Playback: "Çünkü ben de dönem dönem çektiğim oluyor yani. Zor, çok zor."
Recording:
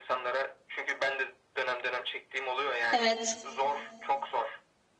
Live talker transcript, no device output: Evet.

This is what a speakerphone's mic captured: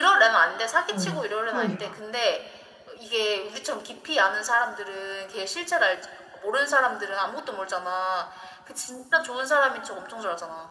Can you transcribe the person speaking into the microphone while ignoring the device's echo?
어 그러니까

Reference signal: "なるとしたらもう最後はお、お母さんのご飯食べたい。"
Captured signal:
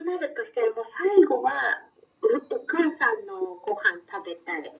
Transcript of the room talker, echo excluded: none

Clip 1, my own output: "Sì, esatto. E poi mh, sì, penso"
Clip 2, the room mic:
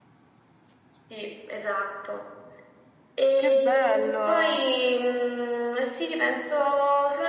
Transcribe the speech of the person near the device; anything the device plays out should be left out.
Che bello!

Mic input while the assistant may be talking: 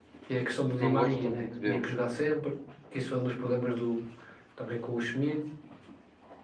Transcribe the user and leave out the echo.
não gostam muito dele.

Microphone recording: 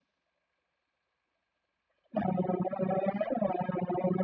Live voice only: none

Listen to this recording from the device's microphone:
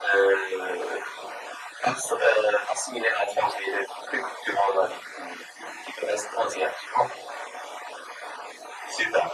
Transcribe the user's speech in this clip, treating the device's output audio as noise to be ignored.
none

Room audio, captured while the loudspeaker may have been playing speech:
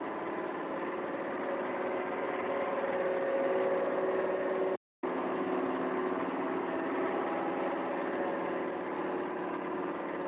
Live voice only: none

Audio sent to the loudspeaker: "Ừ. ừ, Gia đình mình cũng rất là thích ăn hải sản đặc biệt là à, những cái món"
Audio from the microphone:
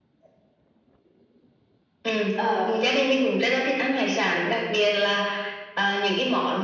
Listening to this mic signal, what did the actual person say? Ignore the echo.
ờ

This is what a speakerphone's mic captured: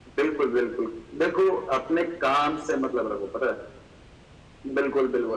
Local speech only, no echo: none

